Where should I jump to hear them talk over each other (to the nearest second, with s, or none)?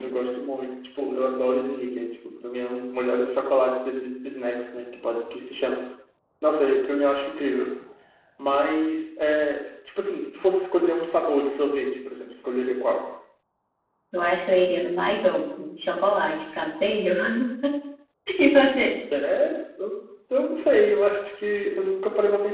none